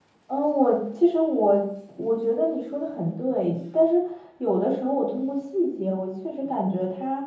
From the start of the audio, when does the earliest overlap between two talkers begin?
none

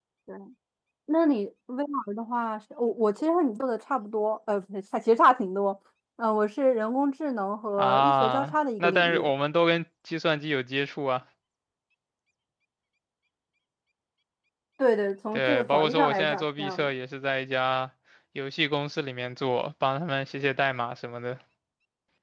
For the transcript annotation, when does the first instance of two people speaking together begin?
7.8 s

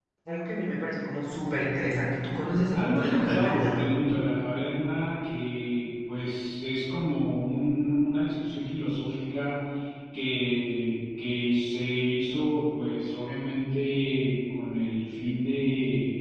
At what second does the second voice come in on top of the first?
2.7 s

